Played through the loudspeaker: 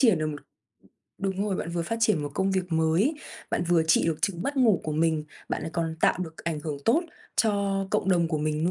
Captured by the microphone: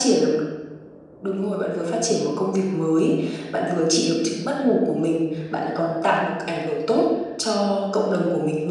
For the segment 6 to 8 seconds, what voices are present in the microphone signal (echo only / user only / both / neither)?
echo only